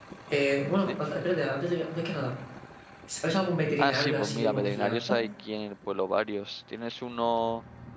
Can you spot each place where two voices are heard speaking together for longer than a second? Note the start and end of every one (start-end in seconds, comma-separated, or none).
3.8-5.2